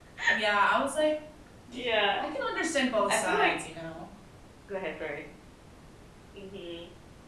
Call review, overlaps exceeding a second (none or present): none